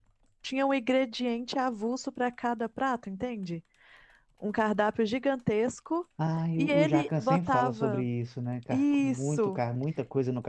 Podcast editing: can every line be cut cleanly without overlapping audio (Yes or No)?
No